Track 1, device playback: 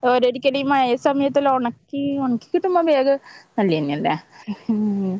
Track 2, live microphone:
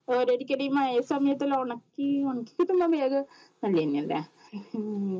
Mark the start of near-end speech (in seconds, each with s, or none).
none